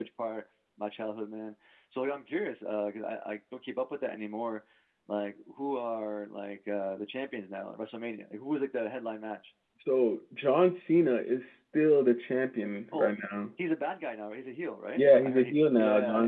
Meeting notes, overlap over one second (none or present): present